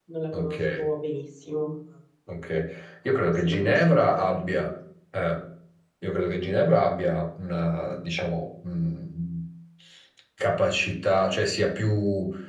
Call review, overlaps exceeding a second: present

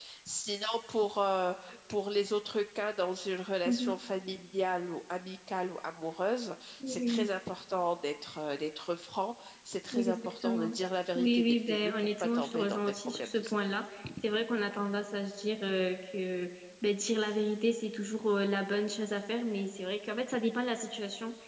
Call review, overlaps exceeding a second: present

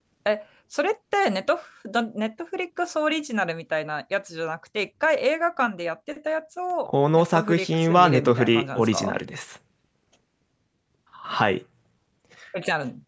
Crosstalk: present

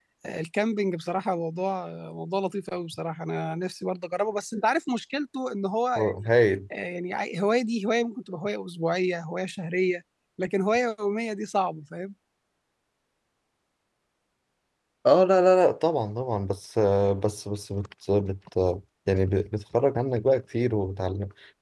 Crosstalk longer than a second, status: none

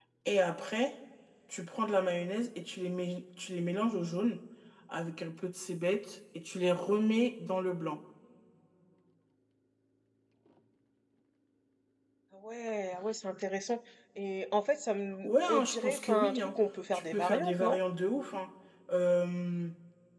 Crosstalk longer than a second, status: present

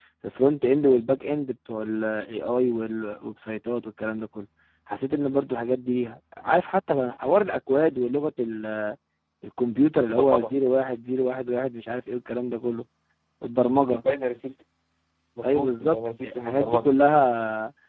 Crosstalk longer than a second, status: present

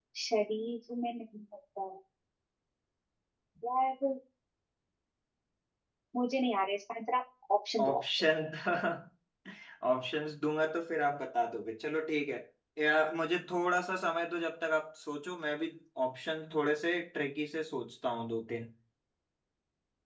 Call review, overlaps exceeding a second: none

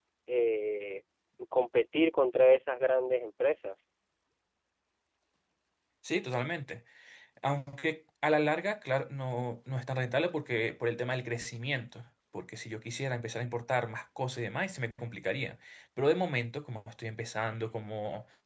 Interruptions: none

